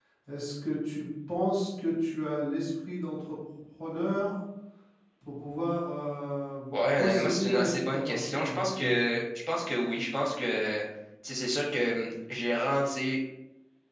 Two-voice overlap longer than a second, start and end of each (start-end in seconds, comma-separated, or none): 7.0-9.0